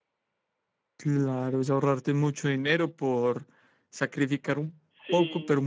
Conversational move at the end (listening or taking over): listening